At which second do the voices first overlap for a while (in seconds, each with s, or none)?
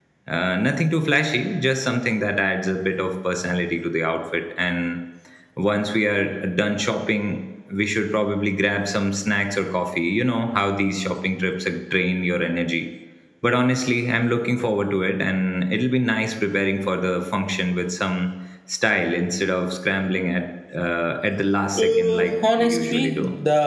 21.7 s